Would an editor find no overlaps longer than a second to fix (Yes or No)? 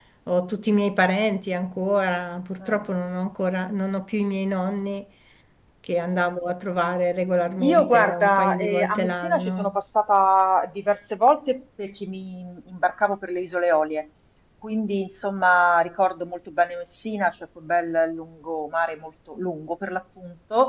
No